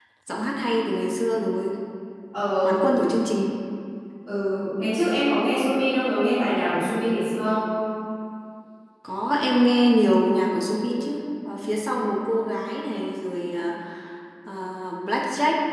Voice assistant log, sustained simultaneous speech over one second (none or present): none